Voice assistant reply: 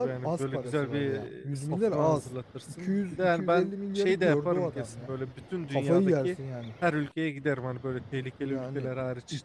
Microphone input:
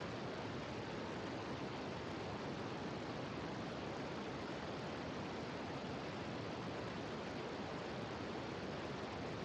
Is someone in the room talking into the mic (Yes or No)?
No